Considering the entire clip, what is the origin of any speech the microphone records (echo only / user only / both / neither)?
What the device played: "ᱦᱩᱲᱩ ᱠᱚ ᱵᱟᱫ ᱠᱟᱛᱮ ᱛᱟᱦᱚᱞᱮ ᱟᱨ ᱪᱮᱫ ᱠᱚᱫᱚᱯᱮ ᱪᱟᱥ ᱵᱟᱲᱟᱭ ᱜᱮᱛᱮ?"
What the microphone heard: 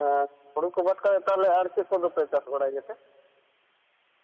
echo only